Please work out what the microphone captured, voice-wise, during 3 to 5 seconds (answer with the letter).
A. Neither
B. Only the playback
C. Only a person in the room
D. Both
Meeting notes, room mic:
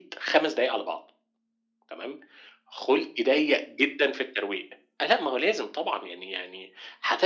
B